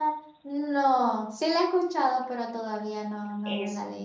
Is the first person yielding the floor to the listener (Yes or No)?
Yes